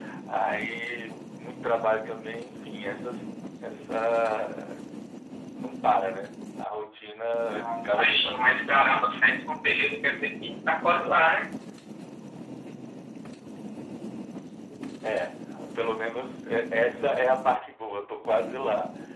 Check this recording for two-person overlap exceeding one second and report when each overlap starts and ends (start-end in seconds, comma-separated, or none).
7.5-9.0